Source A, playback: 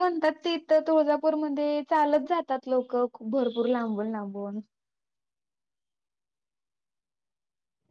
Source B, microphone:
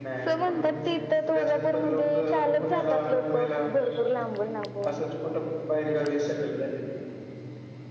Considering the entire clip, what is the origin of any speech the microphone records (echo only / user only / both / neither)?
both